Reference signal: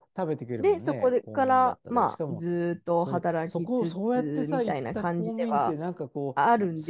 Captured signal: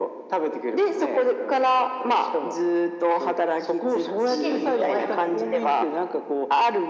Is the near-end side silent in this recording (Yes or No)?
No